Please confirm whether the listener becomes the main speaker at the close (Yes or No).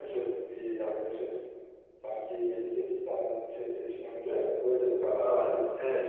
Yes